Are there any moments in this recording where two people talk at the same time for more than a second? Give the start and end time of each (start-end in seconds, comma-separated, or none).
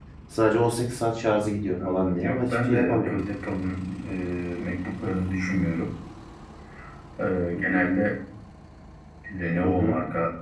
1.8-3.1